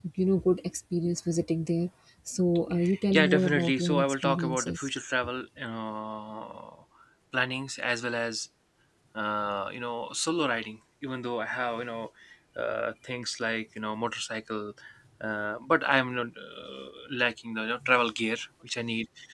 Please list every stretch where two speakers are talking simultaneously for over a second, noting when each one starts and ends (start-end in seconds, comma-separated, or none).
3.1-4.9